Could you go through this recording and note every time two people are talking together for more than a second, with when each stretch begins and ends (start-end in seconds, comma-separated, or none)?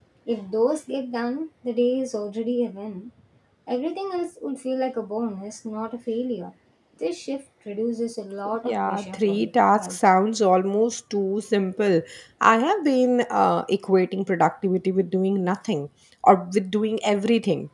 8.6-10.0